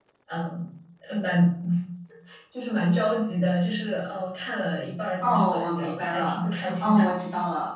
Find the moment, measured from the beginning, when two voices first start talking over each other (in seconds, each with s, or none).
5.2 s